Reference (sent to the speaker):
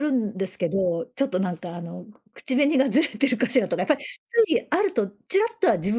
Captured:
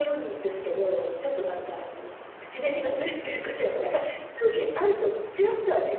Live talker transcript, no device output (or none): none